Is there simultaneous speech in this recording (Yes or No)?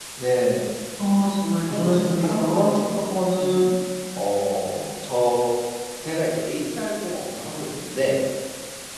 Yes